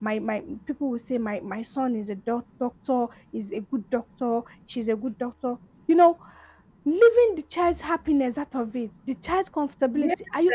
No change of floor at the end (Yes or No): Yes